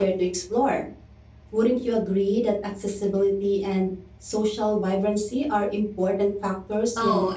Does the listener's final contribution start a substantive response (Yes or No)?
Yes